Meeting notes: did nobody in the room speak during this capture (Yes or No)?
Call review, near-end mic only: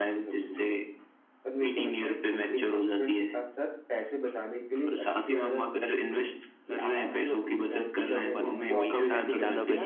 No